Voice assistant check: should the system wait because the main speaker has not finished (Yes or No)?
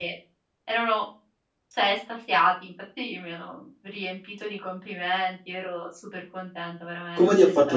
No